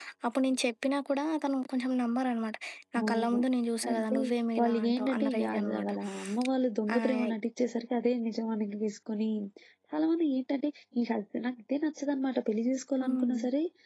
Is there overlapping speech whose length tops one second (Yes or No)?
Yes